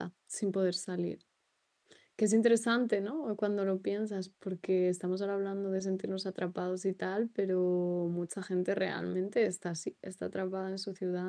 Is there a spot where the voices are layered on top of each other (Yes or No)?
No